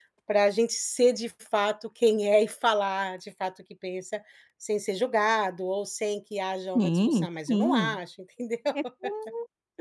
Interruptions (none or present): present